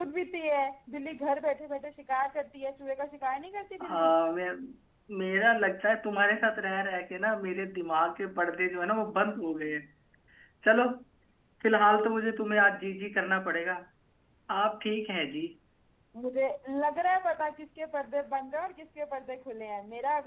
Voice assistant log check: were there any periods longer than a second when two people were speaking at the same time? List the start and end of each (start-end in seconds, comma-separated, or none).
none